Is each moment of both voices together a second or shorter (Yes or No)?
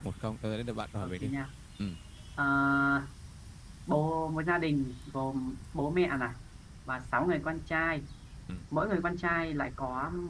Yes